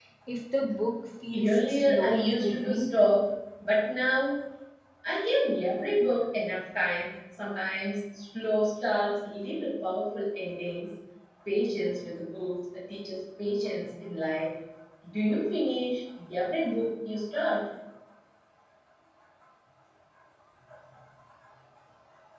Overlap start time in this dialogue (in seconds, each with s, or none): 1.3 s